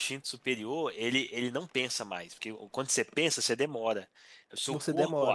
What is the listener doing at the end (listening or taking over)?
listening